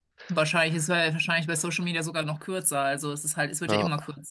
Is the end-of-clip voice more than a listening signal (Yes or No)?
No